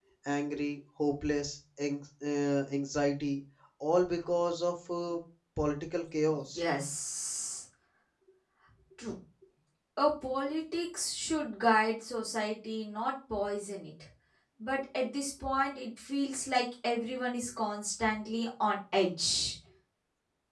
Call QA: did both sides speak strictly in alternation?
Yes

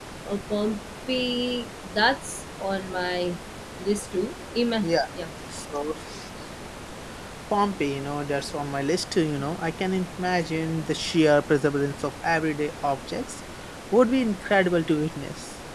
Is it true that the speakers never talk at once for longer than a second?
Yes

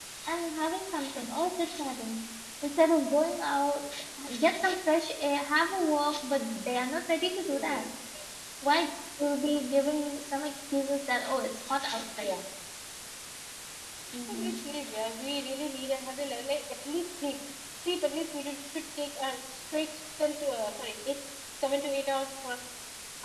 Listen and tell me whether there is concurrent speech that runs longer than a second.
No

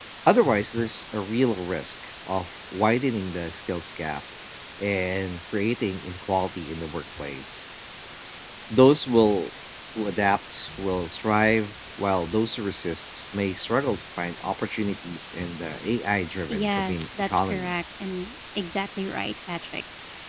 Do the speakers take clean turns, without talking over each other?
No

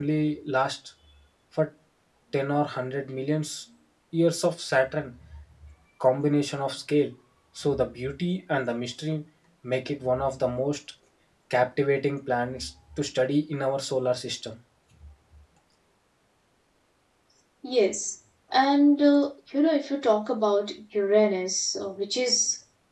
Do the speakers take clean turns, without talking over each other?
Yes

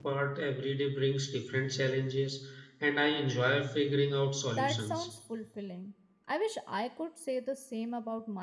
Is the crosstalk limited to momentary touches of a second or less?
Yes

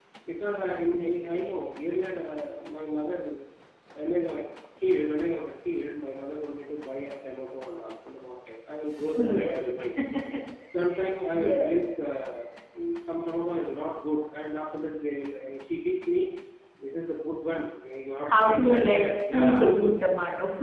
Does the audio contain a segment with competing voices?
Yes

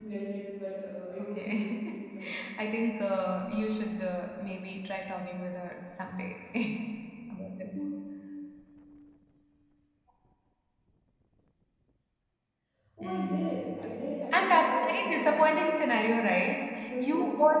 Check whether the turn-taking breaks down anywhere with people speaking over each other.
Yes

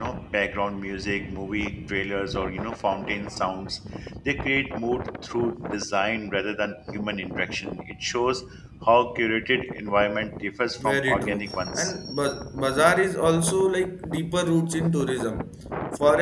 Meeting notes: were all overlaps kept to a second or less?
No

